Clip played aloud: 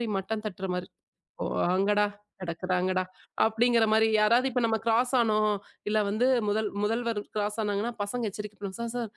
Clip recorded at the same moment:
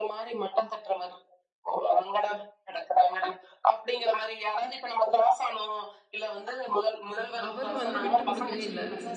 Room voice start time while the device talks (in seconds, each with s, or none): 7.1 s